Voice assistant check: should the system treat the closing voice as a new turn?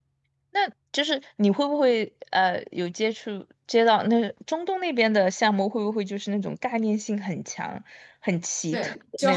Yes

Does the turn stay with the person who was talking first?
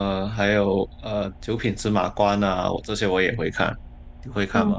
No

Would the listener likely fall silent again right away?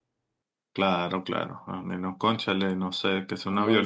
No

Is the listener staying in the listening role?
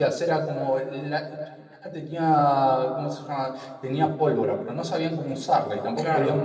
Yes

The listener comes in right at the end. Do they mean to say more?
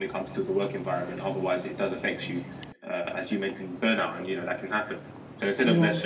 No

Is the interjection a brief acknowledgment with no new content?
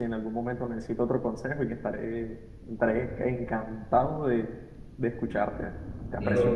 No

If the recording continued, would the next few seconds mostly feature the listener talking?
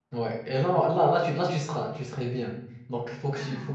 No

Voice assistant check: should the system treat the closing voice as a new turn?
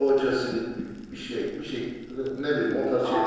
Yes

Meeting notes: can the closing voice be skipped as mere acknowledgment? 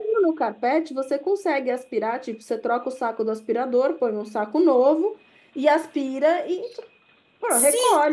No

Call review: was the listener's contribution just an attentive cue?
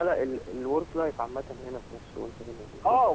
No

